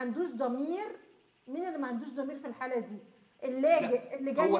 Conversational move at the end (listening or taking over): taking over